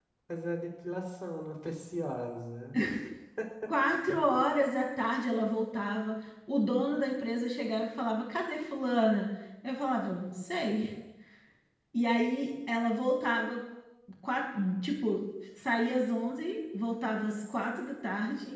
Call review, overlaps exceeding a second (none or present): none